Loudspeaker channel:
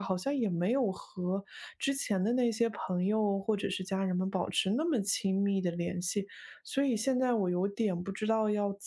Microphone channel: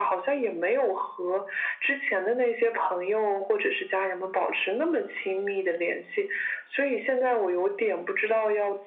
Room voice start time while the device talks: none

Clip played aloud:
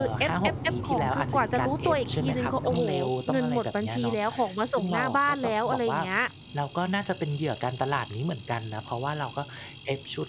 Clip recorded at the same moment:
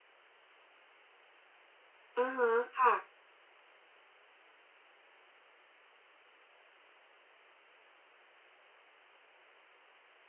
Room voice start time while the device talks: 2.2 s

